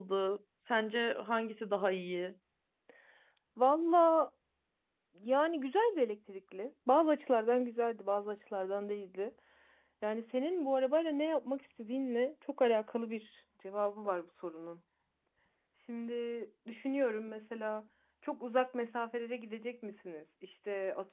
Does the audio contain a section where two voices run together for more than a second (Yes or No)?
No